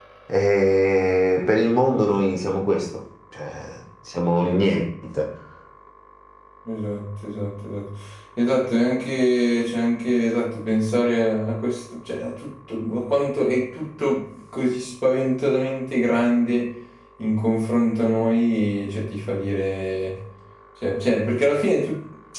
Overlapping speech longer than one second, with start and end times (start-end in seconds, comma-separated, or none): none